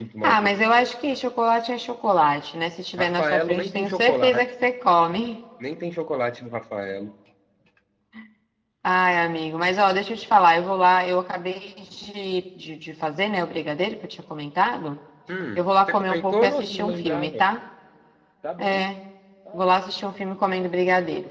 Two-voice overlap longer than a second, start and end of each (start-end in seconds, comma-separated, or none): 3.0-4.5, 15.6-17.4